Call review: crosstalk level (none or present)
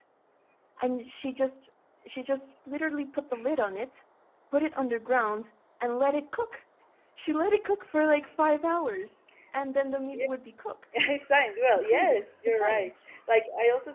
present